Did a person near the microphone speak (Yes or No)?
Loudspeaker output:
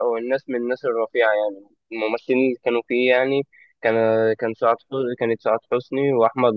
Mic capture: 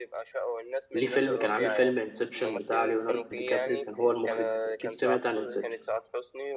Yes